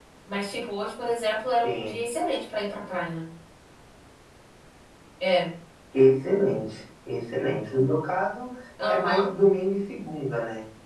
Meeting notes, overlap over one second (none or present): none